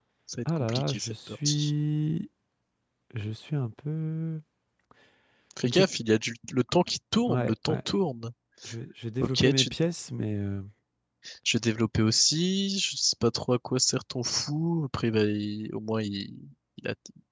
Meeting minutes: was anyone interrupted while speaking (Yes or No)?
Yes